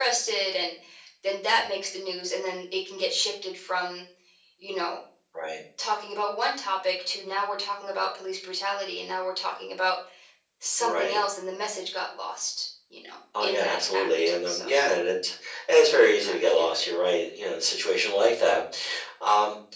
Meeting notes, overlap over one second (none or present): present